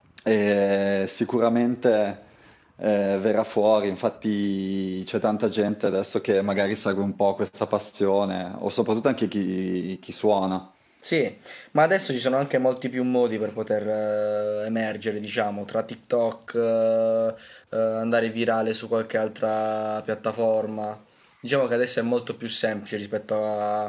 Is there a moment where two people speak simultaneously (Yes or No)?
No